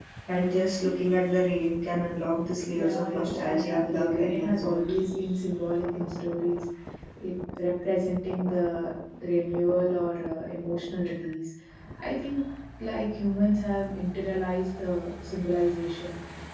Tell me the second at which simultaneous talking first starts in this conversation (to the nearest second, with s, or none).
3 s